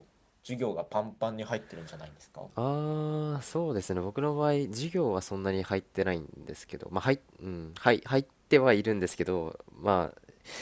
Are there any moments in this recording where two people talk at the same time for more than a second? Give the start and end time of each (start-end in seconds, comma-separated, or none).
none